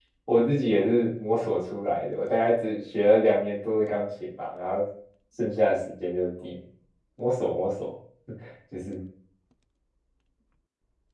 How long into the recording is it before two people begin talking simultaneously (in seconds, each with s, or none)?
none